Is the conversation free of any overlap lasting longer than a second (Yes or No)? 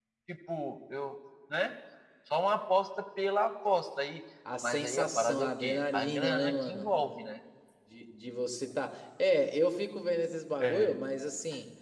No